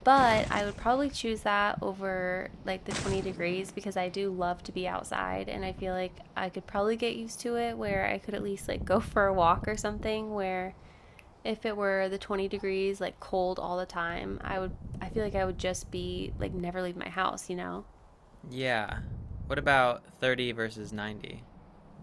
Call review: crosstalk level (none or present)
none